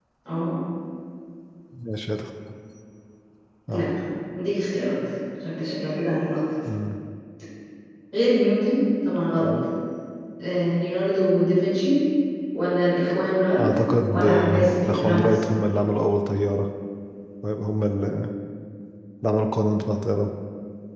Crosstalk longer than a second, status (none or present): present